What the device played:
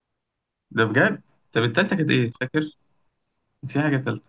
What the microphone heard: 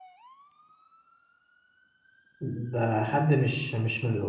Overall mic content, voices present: user only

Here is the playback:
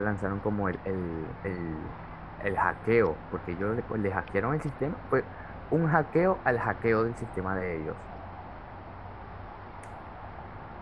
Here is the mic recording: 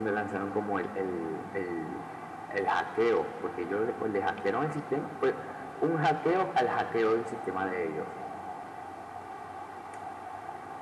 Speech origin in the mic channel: echo only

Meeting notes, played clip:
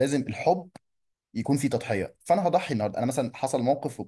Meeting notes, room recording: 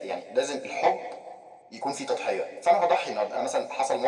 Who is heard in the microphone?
echo only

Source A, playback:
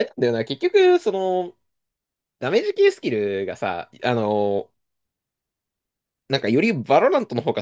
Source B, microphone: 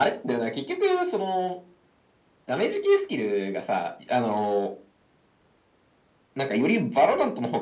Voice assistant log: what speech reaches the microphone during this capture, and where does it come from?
echo only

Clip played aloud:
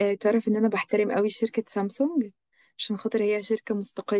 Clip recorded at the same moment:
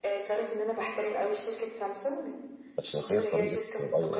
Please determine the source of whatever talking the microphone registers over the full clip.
both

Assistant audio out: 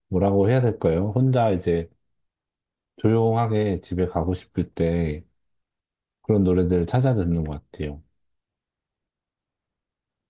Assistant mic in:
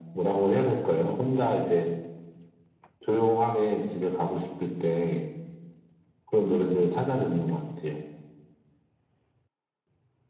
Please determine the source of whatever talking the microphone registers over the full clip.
echo only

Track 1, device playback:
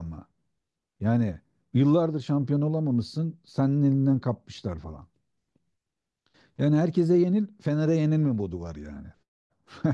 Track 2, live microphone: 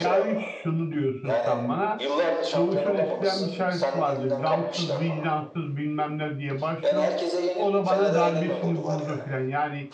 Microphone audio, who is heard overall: both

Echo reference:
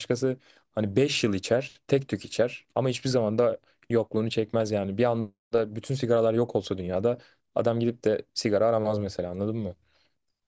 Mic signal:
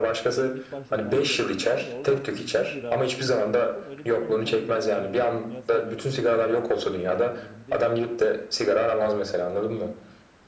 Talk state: both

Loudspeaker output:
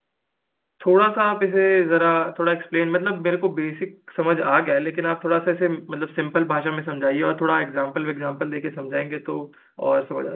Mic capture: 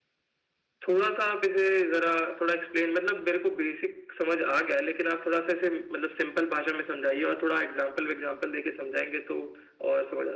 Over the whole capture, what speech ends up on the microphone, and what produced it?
echo only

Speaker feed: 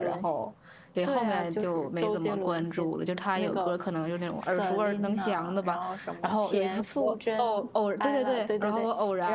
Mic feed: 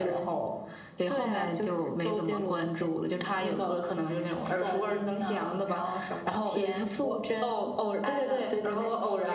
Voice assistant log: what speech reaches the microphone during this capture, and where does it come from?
echo only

